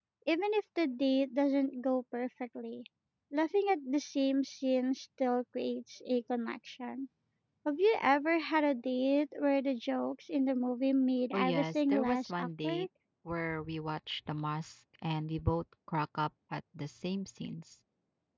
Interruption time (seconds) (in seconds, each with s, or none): 11.3 s